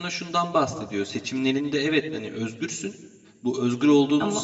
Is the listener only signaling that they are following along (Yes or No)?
Yes